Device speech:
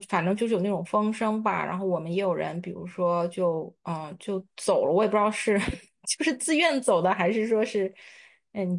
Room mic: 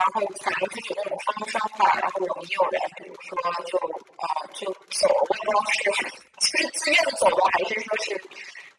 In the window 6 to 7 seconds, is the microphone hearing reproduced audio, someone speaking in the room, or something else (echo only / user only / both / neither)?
echo only